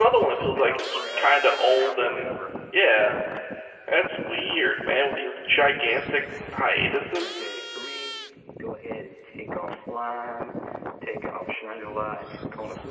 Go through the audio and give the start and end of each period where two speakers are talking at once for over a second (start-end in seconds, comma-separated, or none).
0.5-2.3